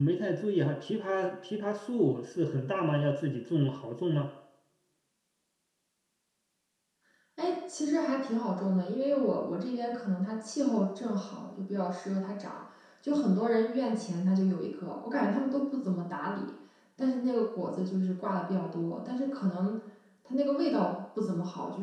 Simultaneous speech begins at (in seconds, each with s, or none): none